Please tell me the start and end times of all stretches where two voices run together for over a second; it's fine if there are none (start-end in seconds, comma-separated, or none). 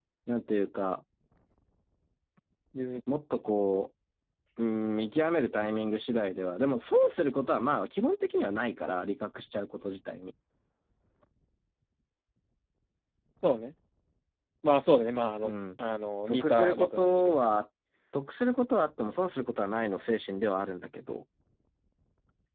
16.3-17.6